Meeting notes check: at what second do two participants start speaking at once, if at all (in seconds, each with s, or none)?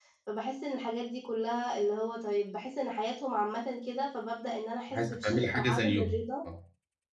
4.9 s